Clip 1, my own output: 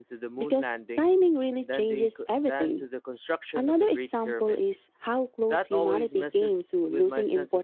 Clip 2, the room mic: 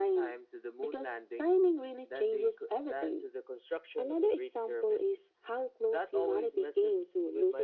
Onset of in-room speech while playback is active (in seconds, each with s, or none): none